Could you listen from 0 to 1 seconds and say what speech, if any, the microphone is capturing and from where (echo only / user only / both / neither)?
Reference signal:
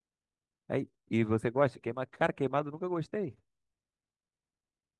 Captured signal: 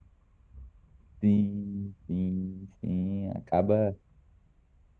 neither